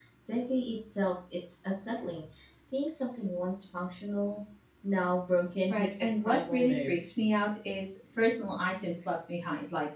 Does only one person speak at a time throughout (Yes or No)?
No